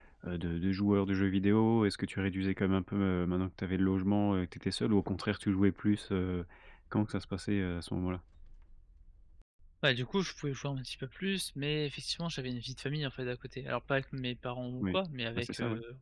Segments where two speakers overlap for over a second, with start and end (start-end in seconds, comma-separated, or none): none